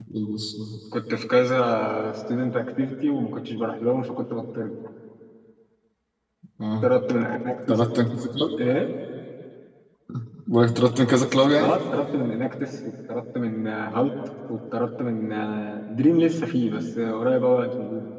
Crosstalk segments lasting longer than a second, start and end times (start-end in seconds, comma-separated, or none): none